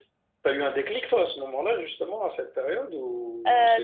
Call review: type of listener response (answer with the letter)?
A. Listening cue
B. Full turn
B